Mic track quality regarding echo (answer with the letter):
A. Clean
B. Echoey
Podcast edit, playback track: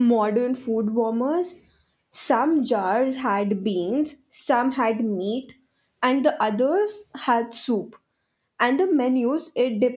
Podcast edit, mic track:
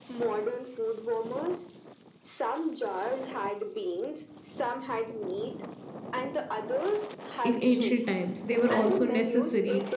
B